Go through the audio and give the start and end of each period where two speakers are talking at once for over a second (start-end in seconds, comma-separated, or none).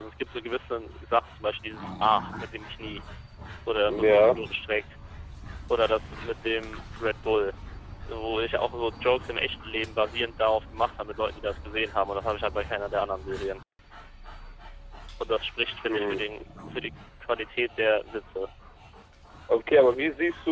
none